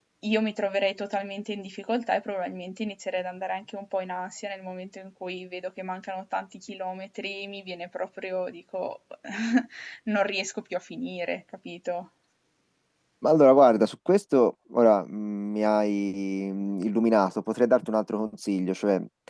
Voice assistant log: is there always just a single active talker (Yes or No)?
Yes